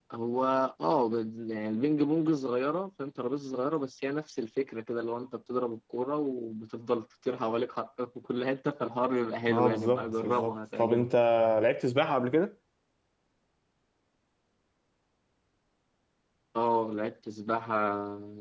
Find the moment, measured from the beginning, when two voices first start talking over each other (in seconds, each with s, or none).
9.5 s